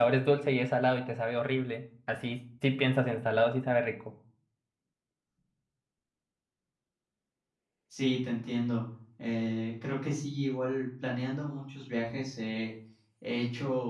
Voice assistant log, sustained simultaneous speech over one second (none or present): none